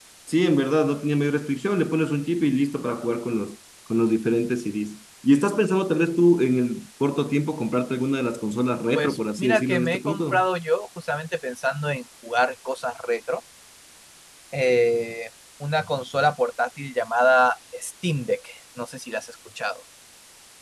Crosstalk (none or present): present